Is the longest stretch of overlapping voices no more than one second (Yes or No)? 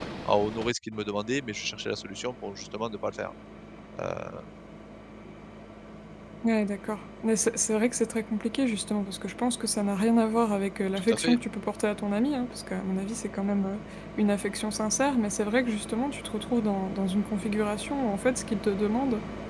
Yes